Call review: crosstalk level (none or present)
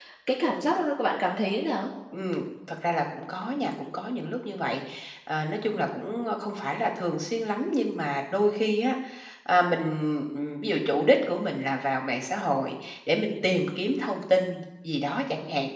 none